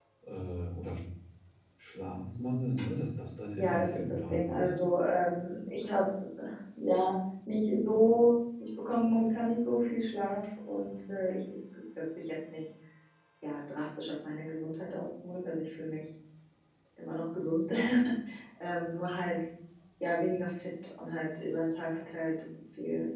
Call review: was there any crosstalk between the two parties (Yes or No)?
Yes